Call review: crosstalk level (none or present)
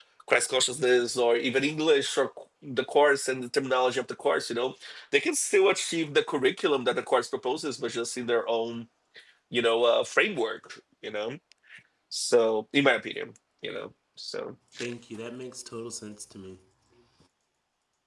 none